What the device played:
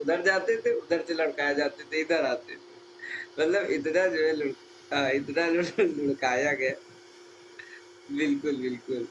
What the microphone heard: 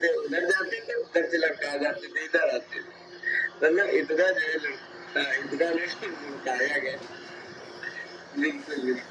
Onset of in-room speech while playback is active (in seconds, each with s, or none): none